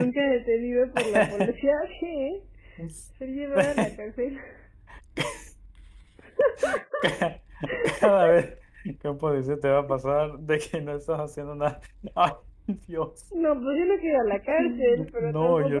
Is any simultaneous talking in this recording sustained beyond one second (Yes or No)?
Yes